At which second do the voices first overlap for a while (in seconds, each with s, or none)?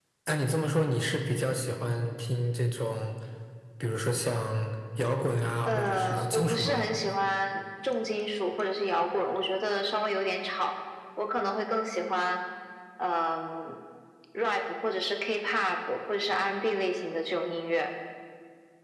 5.6 s